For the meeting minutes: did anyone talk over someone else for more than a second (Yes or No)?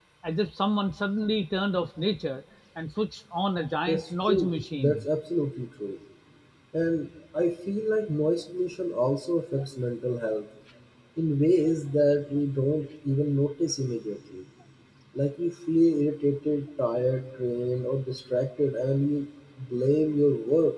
Yes